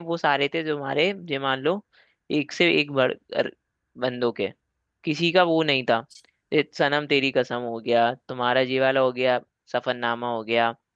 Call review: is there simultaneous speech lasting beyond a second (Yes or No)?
No